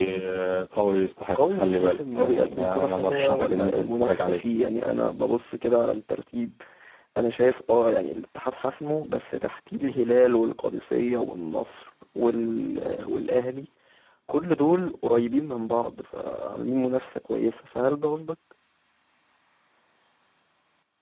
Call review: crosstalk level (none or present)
present